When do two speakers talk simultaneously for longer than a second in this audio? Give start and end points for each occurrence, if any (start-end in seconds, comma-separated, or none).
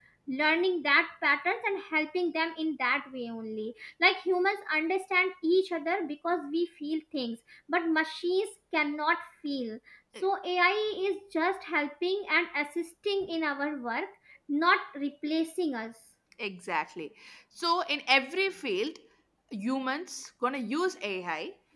none